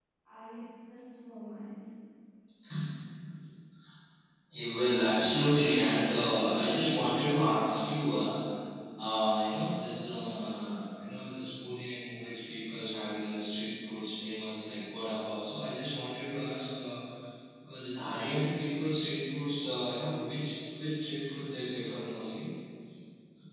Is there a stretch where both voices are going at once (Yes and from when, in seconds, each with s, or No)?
No